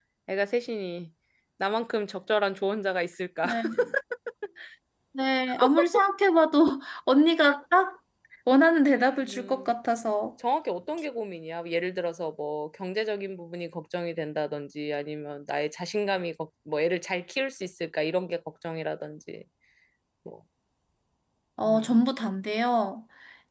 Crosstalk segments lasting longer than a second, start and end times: none

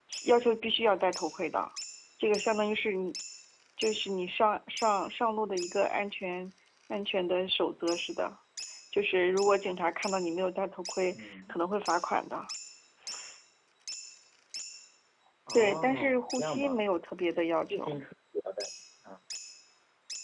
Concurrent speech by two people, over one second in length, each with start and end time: 15.5-16.9

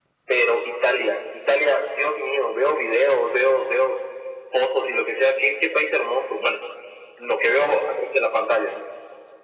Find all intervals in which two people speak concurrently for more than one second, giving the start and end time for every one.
none

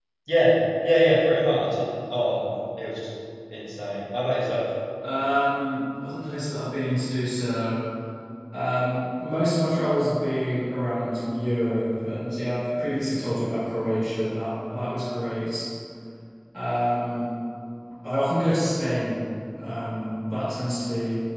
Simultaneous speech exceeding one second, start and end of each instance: none

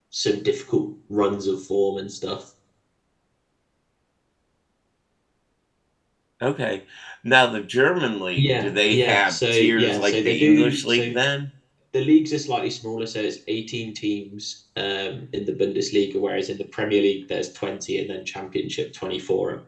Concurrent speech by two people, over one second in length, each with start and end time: 8.3-11.2

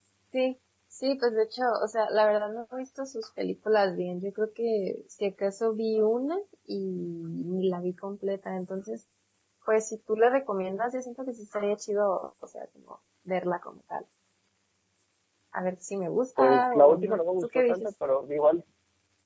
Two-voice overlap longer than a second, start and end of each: 16.4-17.9

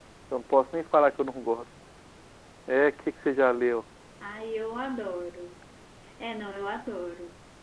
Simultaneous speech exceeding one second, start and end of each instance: none

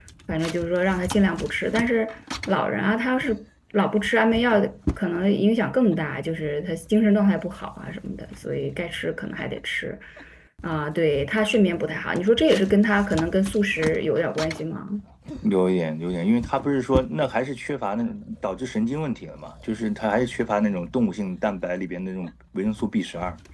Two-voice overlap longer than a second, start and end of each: none

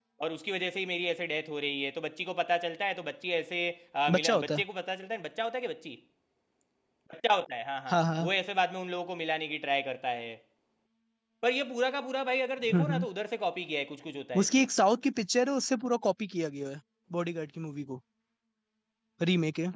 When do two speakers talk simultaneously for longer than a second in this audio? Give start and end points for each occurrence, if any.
none

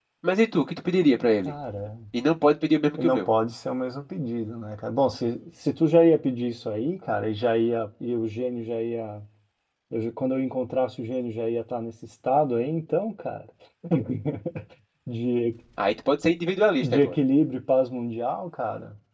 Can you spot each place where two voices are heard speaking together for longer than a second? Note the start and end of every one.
none

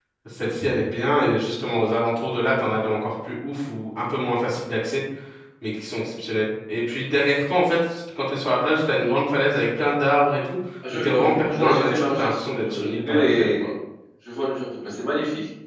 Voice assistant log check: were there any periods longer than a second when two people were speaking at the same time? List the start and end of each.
10.9-13.5

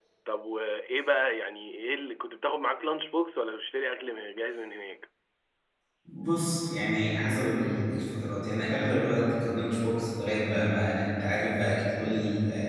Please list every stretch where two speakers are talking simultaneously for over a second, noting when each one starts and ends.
none

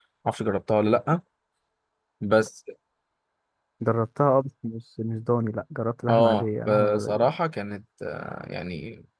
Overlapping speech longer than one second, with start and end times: 6.1-7.3

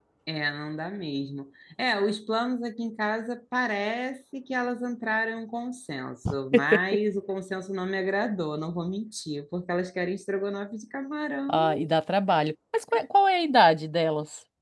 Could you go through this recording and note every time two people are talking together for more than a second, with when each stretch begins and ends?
none

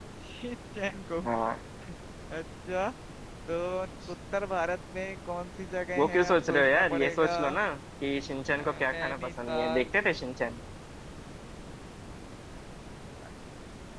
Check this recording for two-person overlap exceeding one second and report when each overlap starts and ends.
6.0-7.3, 8.5-9.9

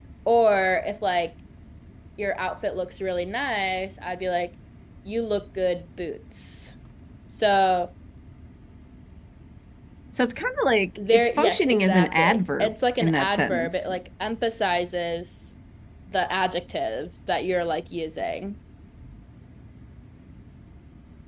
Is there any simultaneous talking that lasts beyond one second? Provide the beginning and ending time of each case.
11.1-13.9

